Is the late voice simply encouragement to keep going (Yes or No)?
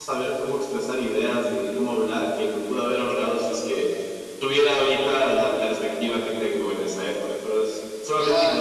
No